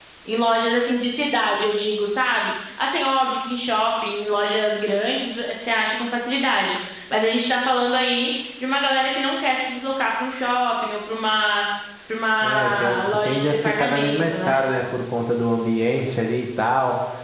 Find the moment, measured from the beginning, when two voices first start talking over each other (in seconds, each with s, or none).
12.4 s